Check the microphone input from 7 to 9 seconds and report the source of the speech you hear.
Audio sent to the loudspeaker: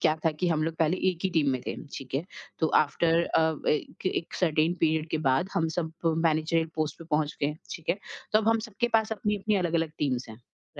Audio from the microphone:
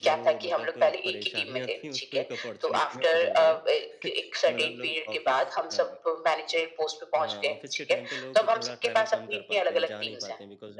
both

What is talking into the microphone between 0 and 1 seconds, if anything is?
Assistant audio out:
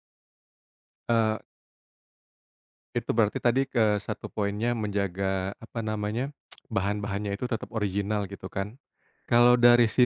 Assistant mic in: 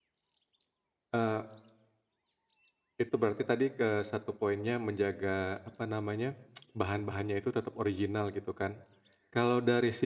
neither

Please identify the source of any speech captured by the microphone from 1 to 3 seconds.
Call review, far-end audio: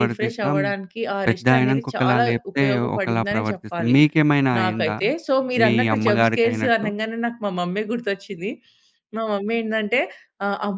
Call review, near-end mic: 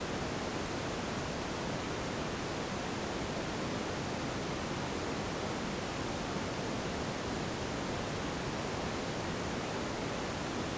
neither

